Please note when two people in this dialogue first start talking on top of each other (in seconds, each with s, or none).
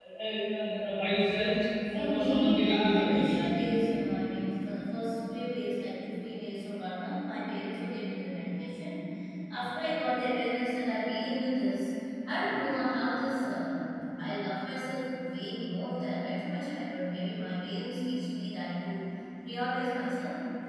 1.9 s